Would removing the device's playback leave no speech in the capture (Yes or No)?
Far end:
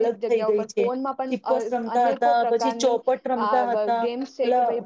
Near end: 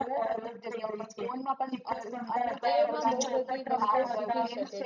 No